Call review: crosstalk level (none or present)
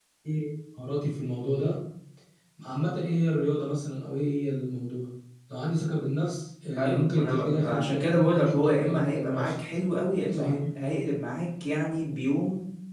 present